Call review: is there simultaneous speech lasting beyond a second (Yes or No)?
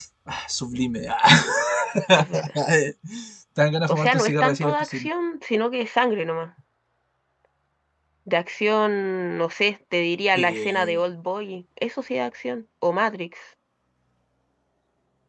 Yes